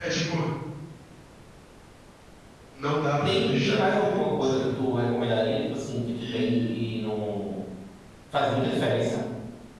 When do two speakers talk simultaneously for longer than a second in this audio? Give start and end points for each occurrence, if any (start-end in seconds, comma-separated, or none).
3.2-4.8